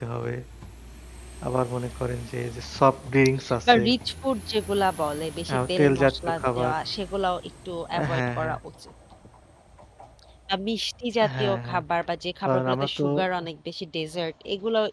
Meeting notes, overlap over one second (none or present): present